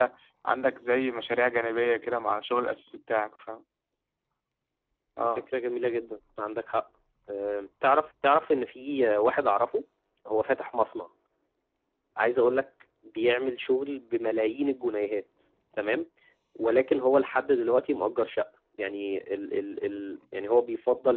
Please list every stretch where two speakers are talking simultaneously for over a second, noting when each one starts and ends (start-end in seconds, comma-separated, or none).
none